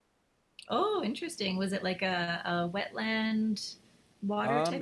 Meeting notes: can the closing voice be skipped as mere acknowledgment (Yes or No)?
No